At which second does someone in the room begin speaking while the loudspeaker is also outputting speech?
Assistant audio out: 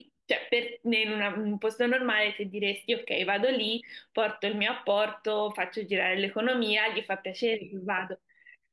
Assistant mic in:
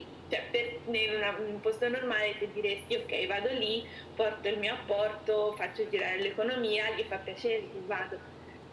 none

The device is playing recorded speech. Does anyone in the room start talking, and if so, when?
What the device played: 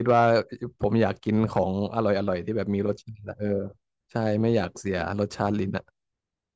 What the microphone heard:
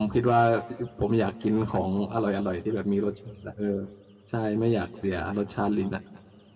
none

